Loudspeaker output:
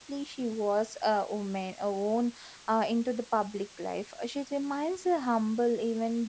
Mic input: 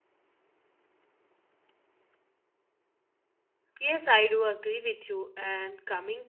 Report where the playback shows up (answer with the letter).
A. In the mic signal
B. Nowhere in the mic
B